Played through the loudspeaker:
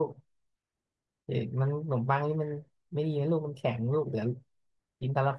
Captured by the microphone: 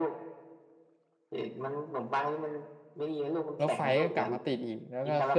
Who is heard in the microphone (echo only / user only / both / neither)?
both